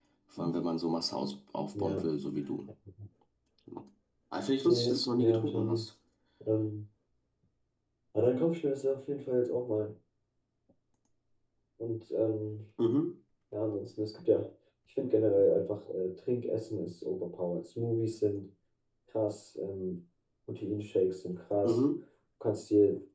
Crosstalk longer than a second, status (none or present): present